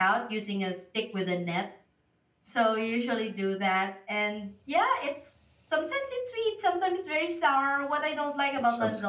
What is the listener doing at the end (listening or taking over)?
listening